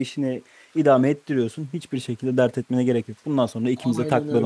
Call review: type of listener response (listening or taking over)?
taking over